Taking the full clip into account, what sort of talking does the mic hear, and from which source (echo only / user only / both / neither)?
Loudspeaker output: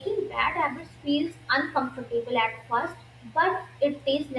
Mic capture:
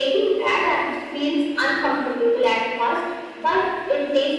echo only